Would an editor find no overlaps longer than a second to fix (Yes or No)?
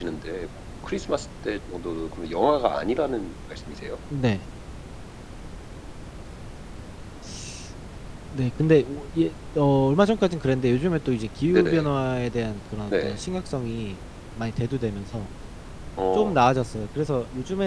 Yes